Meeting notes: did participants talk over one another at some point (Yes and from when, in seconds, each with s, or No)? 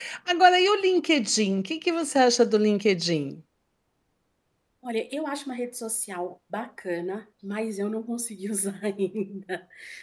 No